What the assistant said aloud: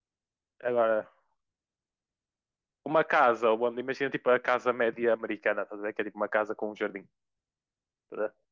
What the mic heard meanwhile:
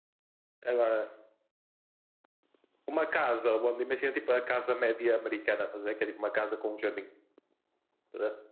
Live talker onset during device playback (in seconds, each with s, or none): none